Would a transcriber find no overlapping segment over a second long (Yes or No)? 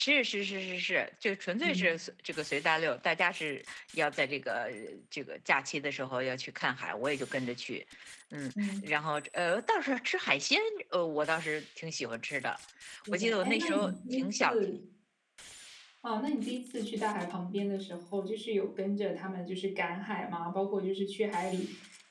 No